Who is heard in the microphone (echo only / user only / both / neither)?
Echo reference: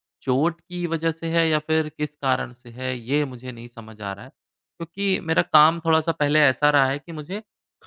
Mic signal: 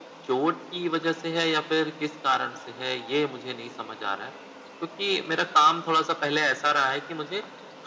echo only